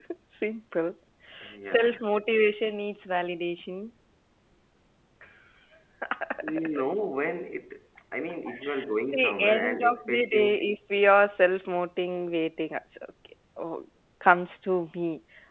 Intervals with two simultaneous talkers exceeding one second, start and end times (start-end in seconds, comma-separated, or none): 9.1-10.6